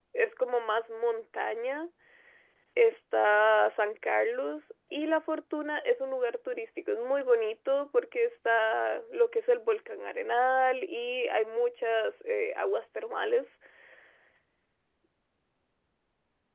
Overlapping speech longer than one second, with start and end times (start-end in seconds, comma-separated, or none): none